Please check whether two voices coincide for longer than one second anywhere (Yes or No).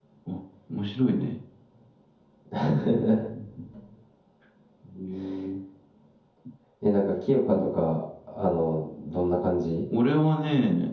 No